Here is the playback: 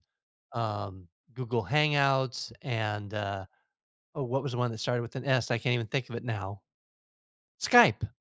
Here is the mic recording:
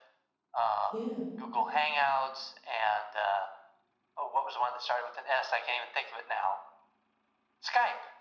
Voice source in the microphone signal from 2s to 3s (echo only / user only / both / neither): echo only